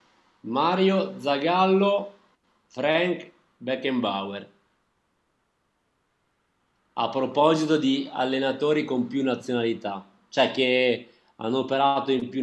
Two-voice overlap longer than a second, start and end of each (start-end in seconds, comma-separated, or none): none